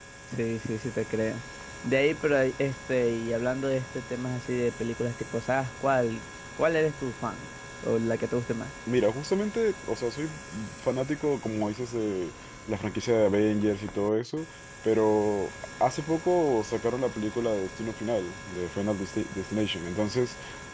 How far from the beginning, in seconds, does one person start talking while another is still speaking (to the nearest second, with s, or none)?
none